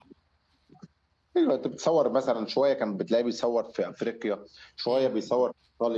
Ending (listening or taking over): listening